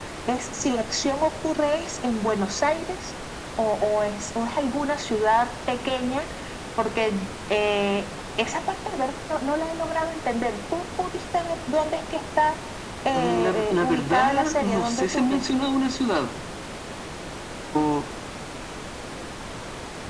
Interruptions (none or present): present